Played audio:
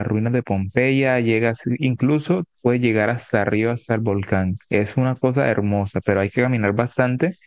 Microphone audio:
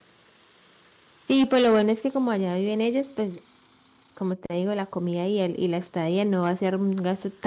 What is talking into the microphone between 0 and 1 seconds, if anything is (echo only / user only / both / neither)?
neither